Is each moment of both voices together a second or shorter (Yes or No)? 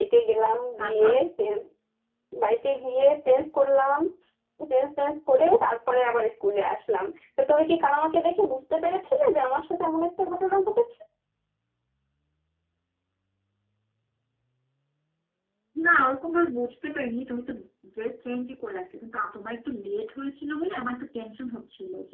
Yes